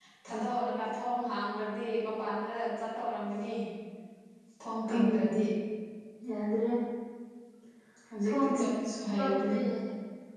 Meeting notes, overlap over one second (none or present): present